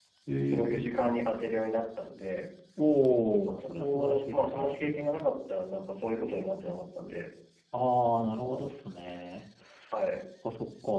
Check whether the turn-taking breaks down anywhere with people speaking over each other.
Yes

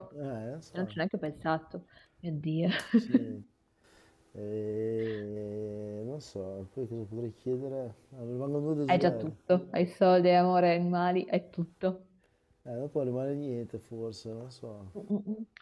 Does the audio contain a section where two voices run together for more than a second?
No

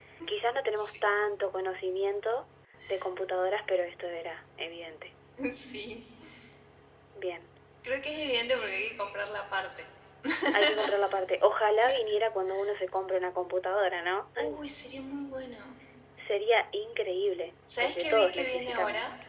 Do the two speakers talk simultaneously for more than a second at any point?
Yes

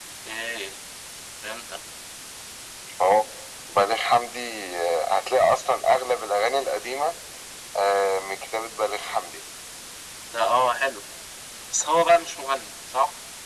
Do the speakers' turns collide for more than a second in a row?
No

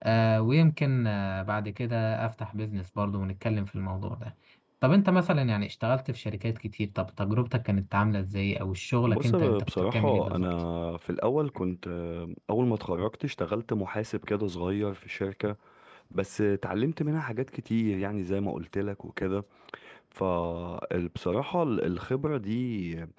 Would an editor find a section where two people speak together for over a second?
Yes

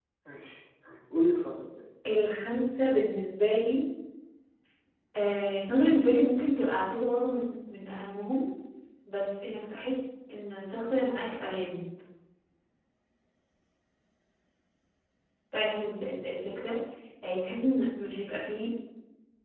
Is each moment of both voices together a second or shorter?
Yes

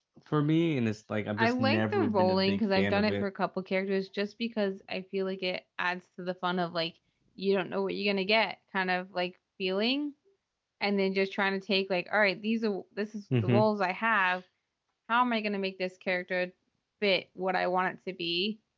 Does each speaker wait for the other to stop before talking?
No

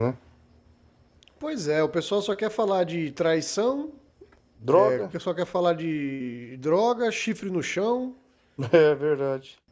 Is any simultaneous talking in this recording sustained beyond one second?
No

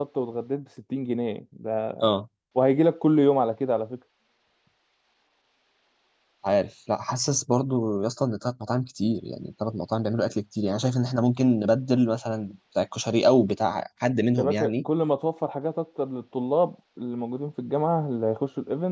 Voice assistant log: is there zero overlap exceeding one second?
Yes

